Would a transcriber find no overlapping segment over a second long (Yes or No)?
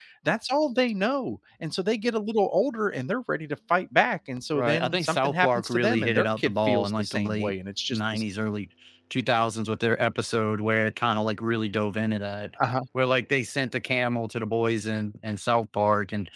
No